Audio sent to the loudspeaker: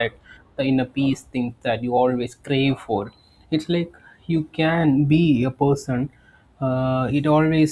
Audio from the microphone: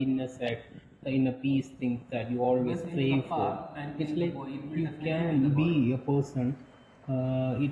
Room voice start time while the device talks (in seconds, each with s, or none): 2.6 s